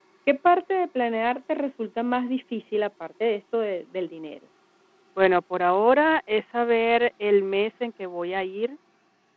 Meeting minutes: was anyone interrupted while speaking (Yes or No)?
No